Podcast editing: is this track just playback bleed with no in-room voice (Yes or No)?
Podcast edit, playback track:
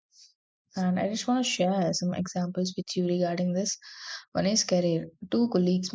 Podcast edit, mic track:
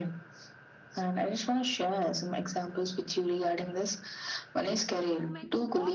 No